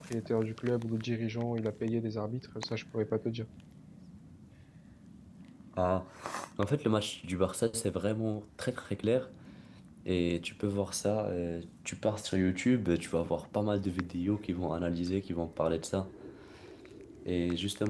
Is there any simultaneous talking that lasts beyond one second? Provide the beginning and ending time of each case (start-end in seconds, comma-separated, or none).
none